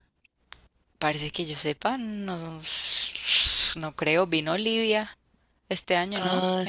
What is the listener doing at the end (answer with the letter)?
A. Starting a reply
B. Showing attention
A